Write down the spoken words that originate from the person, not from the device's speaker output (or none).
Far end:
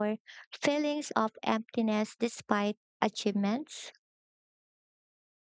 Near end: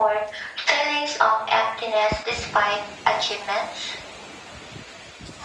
none